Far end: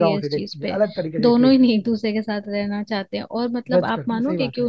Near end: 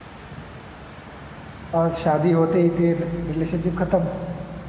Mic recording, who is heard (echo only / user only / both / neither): user only